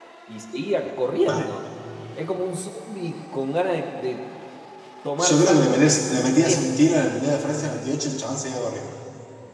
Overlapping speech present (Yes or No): Yes